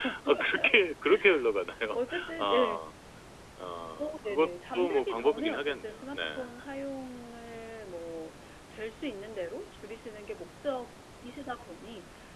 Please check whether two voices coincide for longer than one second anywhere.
Yes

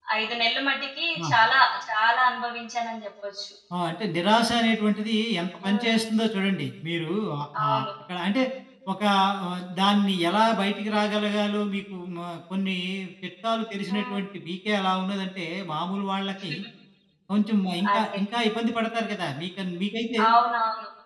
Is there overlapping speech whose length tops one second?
No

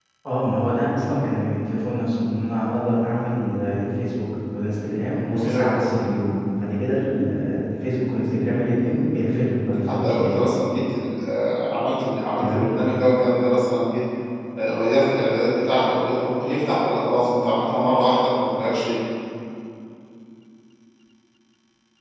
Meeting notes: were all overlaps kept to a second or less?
Yes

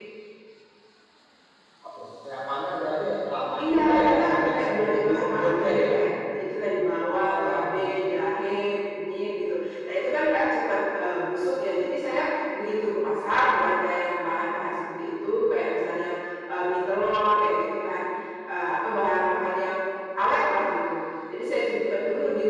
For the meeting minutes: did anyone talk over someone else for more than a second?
Yes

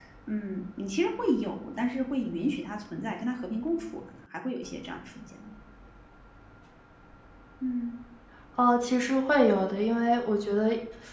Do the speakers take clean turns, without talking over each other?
Yes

